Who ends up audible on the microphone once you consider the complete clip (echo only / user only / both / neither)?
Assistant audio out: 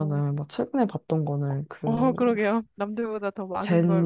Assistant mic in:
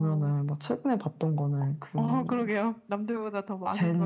echo only